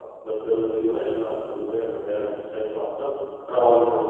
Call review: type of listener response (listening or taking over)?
listening